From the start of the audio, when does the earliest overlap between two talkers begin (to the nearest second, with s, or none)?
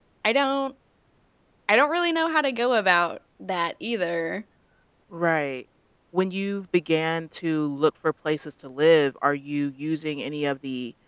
none